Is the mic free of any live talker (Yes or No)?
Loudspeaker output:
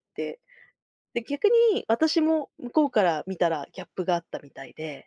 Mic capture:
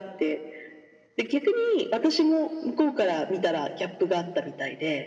Yes